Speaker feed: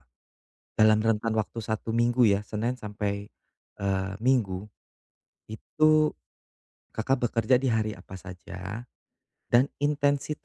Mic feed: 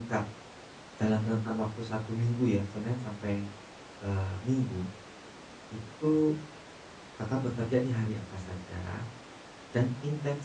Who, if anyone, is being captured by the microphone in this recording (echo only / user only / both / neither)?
echo only